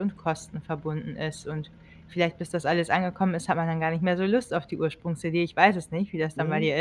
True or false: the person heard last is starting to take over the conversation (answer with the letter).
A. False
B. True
B